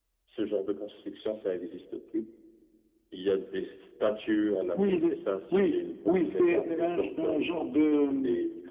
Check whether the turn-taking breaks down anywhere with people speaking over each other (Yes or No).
Yes